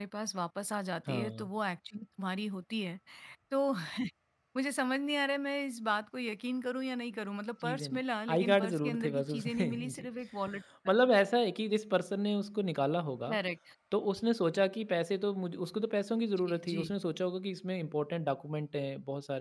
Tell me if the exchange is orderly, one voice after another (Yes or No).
No